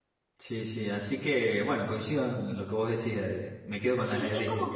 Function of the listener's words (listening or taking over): taking over